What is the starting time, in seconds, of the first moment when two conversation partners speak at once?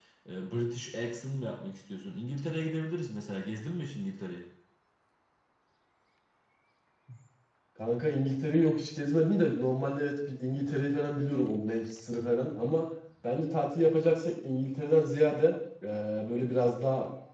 none

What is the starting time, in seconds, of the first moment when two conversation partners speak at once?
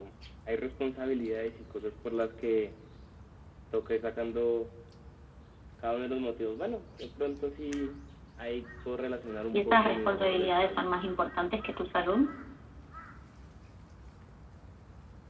9.5 s

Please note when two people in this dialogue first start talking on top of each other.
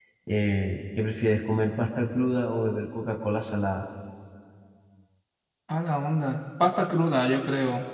none

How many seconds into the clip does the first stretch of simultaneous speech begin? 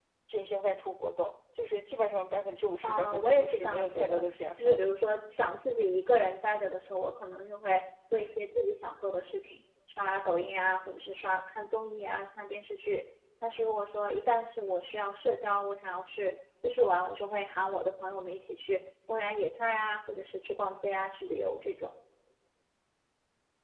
2.8 s

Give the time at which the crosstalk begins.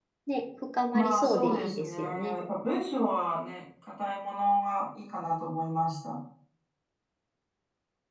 0.9 s

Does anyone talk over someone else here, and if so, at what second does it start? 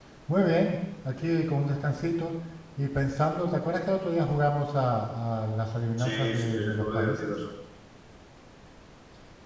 6.0 s

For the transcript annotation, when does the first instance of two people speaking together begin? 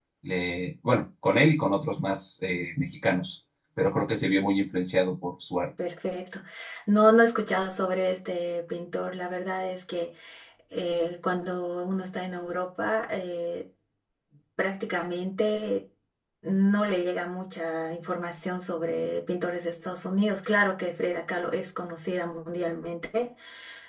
none

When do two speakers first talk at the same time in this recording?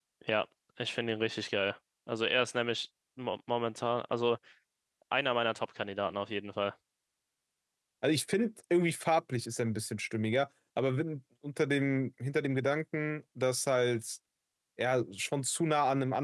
none

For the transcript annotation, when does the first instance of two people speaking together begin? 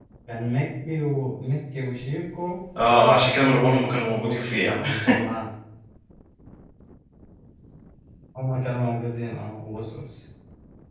2.8 s

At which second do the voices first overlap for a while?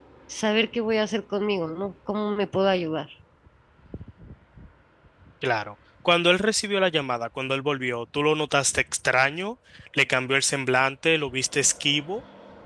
none

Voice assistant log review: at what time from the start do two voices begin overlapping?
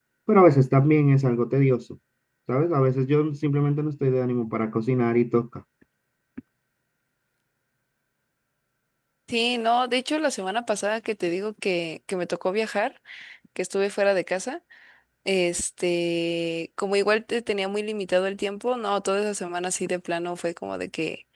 none

